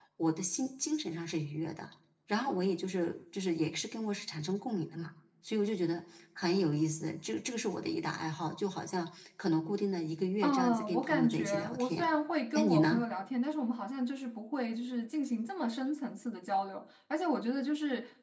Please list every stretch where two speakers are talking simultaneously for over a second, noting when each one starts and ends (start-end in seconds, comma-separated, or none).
10.4-12.1